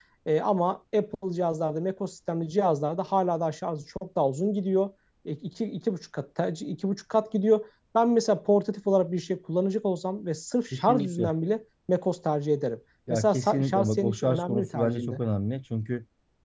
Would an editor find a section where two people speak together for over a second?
Yes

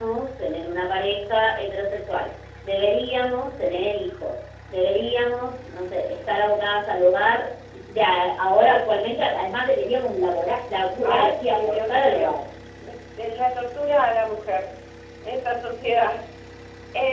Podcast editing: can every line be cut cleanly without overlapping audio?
No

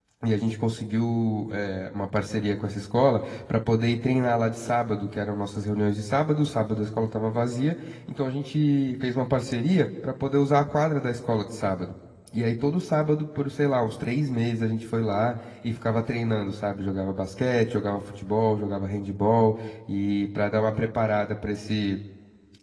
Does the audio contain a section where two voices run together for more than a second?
No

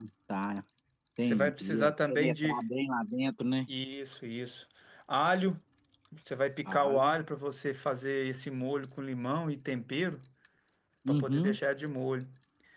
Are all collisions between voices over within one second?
No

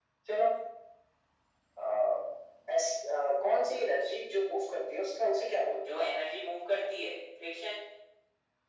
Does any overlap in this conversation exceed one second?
No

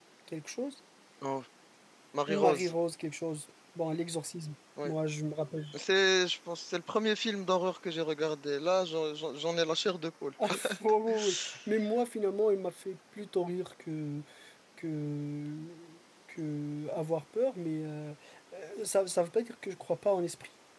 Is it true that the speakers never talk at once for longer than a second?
Yes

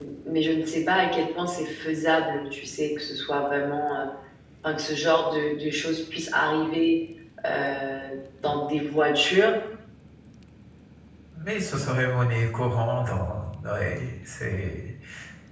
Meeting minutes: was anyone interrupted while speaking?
No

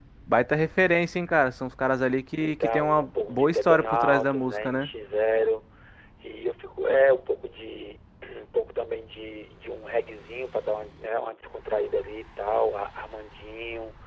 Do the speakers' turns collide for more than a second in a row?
Yes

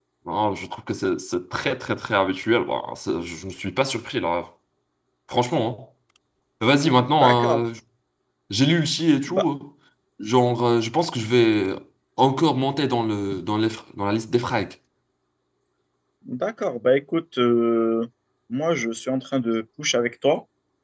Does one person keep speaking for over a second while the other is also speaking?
No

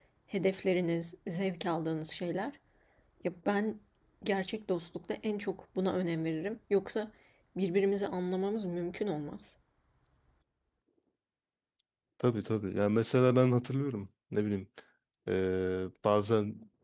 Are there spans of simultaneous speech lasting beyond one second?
No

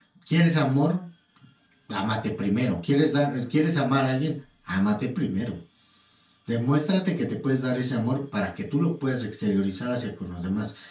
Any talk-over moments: No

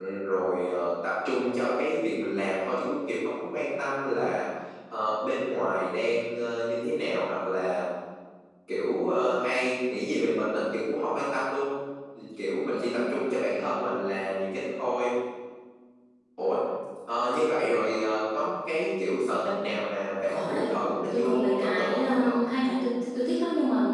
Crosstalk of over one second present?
Yes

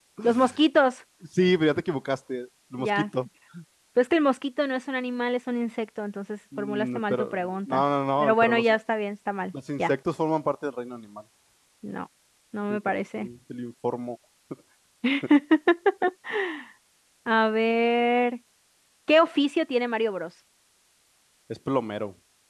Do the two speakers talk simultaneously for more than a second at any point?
Yes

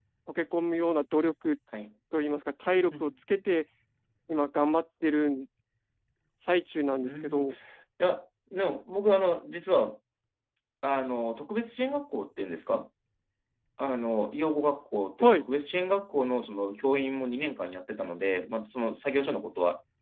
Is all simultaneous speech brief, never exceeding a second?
Yes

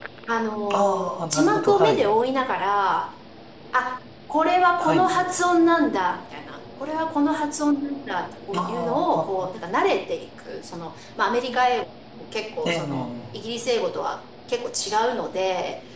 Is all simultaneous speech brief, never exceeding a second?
No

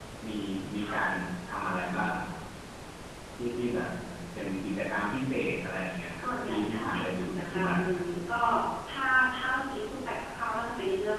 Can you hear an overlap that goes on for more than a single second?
Yes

